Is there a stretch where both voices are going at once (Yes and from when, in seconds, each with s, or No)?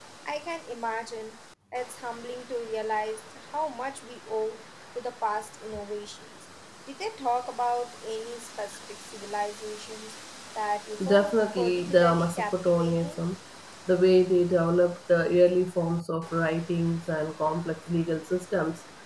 Yes, from 11.0 s